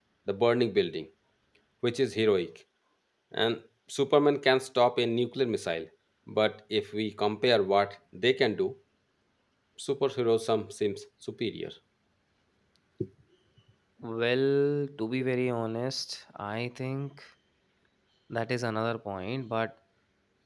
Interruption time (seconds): none

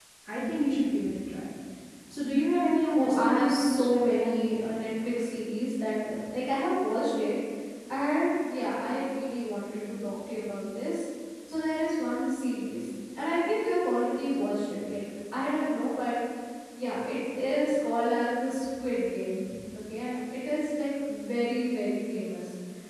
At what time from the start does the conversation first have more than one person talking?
3.0 s

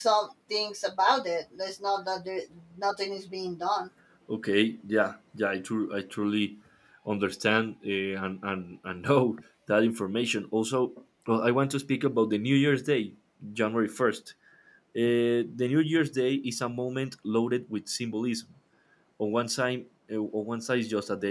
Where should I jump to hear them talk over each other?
none

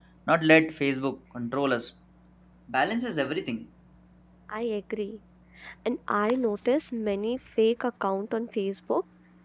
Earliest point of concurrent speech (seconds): none

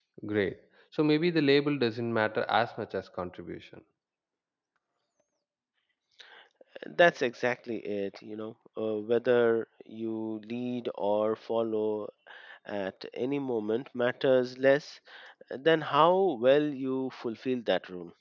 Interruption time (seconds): none

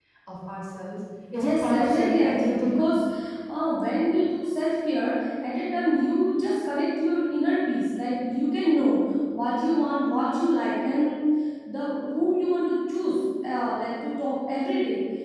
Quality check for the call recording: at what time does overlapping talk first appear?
1.4 s

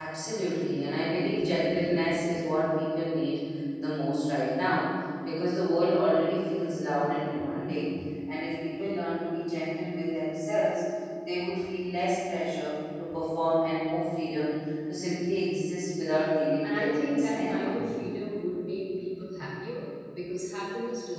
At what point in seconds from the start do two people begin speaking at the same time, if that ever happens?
16.6 s

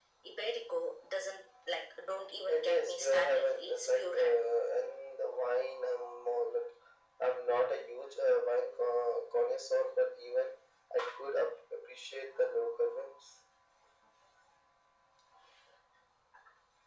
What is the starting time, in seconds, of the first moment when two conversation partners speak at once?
2.5 s

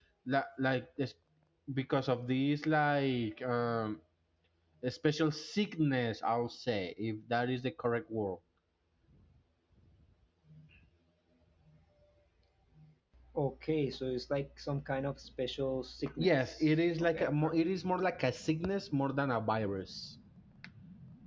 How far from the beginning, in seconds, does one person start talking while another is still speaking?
16.2 s

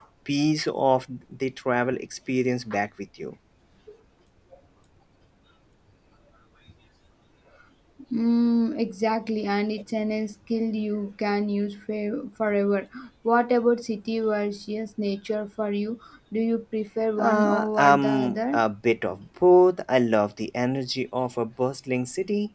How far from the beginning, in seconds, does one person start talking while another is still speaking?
17.2 s

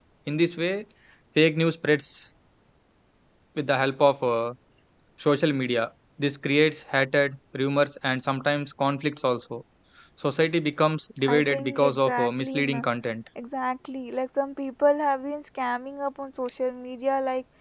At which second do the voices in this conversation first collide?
11.2 s

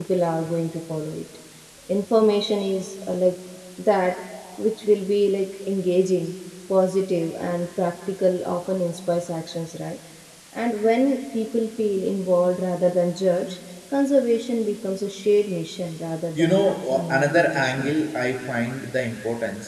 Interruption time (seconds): 16.4 s

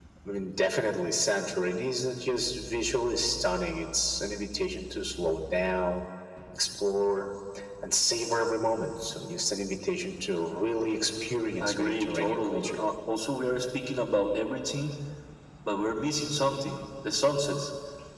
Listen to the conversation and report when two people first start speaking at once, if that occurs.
11.6 s

